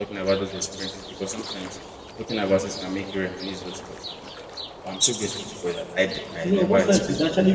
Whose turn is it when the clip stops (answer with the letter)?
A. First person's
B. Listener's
B